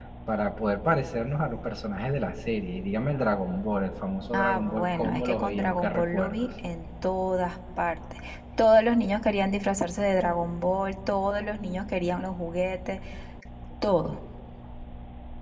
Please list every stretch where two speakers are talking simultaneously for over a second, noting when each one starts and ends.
4.4-6.4

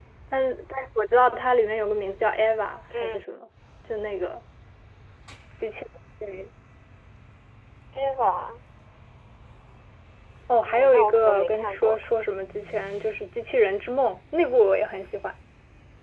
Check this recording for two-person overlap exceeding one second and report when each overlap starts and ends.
10.6-12.0

